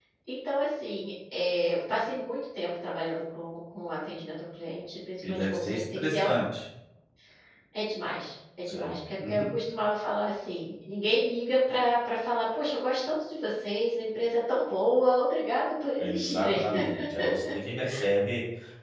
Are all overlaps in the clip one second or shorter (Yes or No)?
No